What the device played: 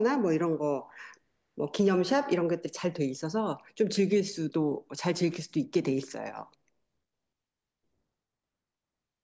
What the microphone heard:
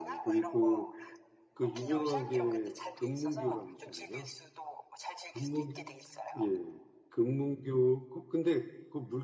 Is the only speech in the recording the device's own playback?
No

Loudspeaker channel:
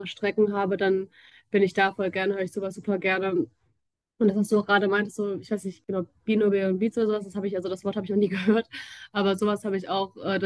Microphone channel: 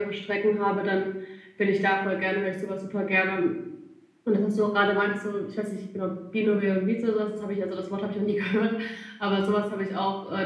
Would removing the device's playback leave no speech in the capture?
Yes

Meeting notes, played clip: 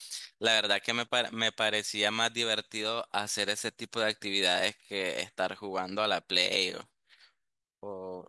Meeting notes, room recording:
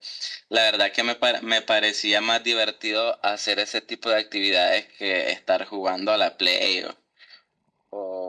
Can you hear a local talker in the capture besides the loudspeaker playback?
No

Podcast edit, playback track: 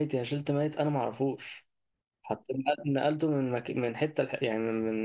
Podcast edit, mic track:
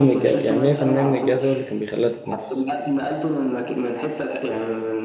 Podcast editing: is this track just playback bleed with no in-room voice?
No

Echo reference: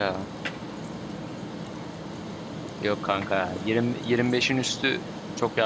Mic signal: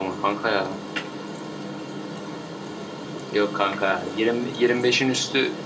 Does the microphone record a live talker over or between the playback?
No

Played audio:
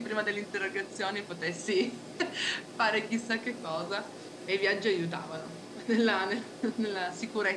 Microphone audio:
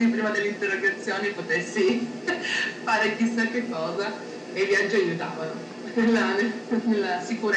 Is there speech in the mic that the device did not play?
No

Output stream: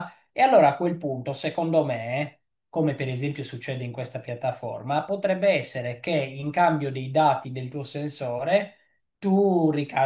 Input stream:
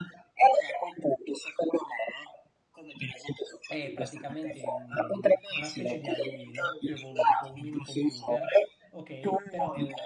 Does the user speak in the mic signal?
Yes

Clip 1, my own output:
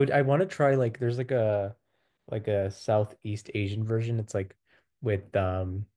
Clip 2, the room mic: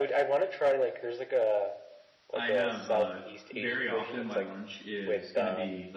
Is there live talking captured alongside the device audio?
Yes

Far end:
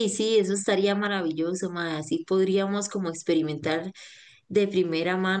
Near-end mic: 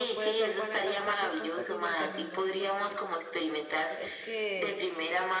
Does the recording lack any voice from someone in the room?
No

